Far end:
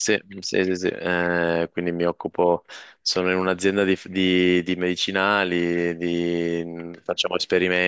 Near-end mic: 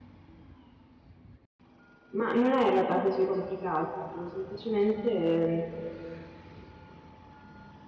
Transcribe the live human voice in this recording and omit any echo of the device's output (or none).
Ma non è in realtà così complicato, semplicemente ehm,